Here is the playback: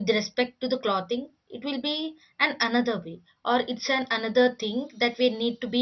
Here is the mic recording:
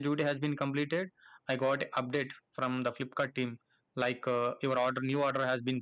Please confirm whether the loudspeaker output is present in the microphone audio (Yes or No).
No